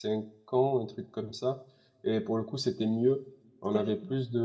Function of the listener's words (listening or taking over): listening